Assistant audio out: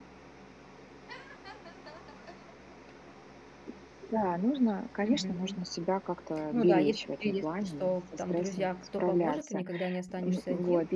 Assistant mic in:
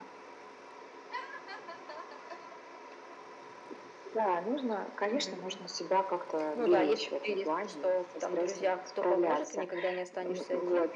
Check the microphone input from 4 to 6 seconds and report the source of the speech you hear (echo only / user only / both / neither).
echo only